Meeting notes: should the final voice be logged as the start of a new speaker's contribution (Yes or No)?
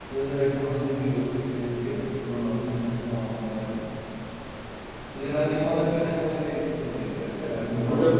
Yes